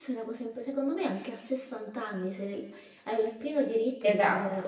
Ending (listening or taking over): listening